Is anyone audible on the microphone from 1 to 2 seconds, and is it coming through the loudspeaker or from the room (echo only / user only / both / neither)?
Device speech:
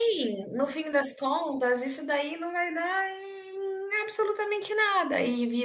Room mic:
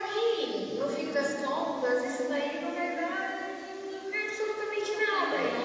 echo only